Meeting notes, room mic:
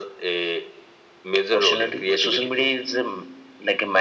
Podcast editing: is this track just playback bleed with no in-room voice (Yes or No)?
Yes